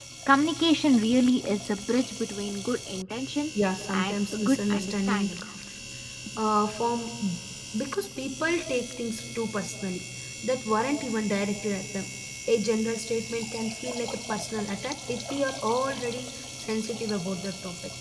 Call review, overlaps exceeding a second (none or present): present